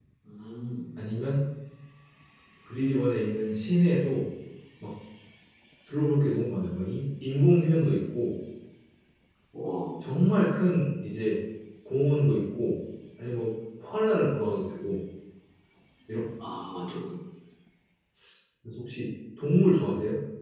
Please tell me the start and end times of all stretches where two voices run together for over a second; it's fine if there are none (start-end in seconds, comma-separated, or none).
none